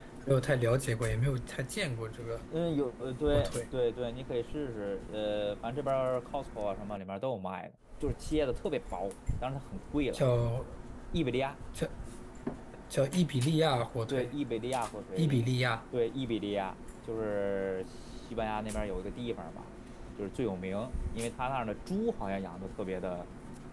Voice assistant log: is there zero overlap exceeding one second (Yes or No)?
Yes